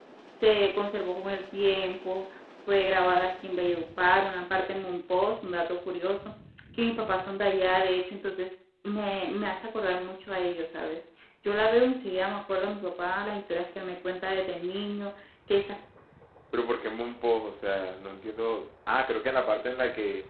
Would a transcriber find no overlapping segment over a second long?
Yes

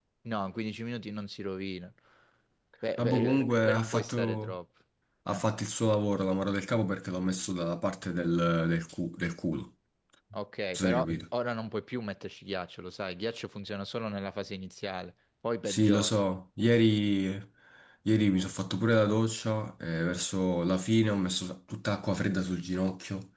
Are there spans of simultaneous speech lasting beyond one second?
Yes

